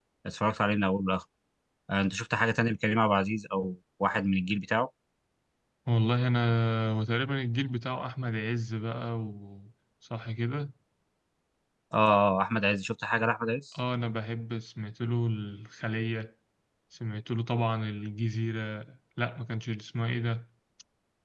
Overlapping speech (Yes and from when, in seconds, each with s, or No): No